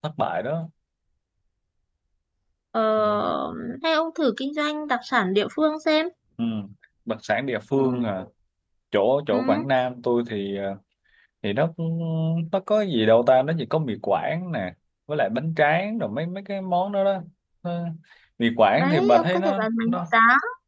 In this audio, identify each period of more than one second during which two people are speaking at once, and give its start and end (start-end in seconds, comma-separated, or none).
18.8-20.0